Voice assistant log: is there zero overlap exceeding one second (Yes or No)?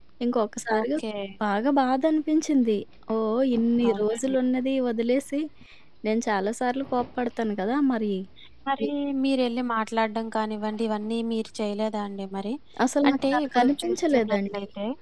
No